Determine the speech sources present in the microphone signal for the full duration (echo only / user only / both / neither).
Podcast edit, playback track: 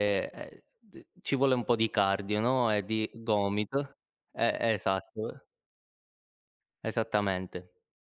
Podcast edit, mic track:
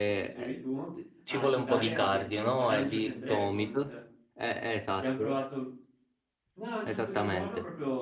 both